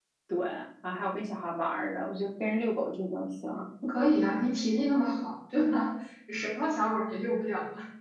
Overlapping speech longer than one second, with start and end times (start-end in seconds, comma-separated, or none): none